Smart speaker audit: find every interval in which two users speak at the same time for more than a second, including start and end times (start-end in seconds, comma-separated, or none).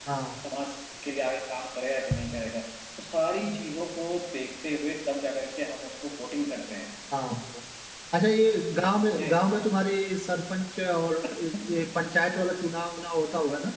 none